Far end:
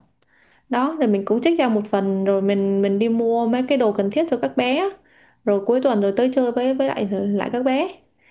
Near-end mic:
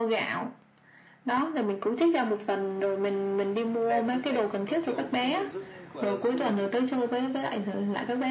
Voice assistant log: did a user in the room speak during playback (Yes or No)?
Yes